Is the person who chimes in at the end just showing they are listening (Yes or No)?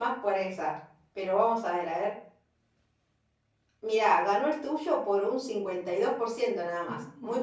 No